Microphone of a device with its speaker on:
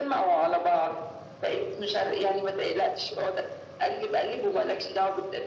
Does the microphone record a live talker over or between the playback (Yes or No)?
No